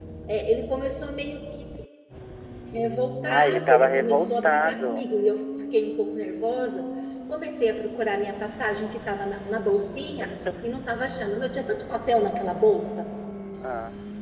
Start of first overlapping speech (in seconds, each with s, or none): 3.2 s